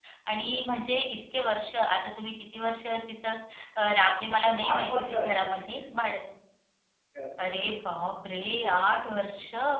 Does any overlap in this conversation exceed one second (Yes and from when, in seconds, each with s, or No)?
Yes, from 4.3 s